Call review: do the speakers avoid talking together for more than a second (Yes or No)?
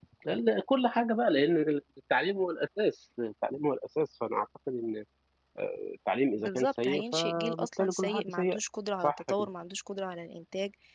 No